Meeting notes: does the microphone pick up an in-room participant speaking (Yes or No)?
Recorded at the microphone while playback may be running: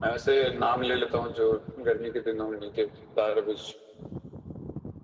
No